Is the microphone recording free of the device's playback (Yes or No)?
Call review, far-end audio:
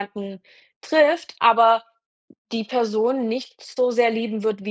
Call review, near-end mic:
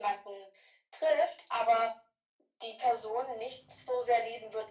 No